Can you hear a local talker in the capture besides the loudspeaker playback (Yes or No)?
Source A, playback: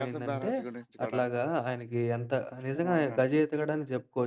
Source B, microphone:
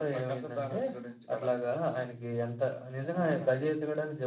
No